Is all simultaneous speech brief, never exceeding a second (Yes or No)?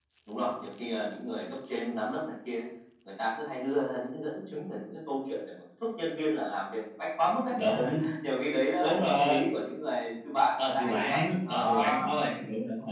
No